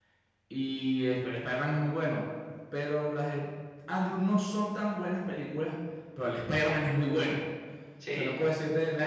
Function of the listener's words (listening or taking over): listening